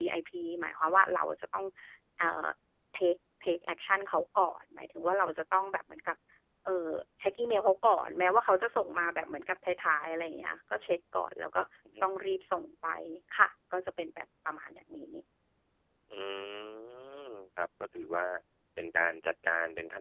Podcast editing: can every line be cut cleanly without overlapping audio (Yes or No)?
Yes